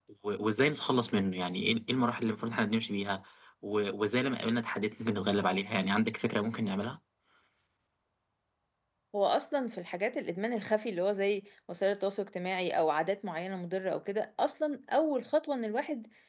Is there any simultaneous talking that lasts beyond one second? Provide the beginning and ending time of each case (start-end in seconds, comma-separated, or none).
none